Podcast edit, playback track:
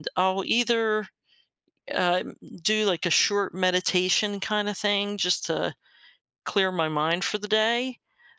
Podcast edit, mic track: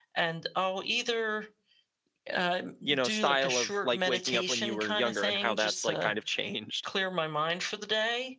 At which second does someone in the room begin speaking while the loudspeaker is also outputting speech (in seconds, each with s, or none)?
2.8 s